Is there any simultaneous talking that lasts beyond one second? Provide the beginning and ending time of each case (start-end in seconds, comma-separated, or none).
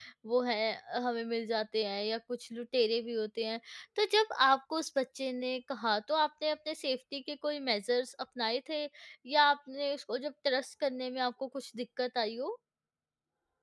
none